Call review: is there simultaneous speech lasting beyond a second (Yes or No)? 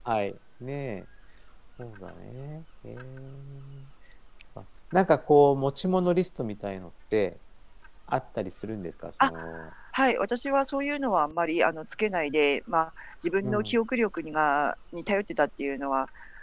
No